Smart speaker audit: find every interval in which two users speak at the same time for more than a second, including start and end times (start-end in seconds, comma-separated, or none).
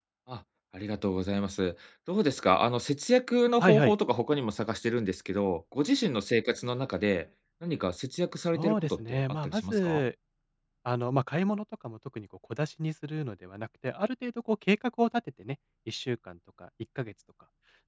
8.5-10.0